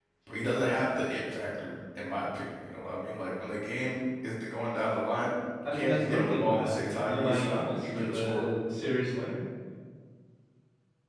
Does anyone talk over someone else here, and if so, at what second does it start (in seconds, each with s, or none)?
5.6 s